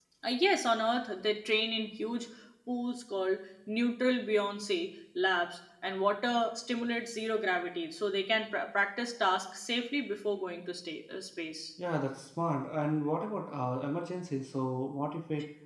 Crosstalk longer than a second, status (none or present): none